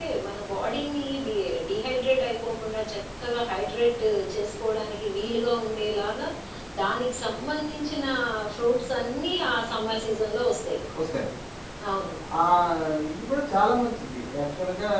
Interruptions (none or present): none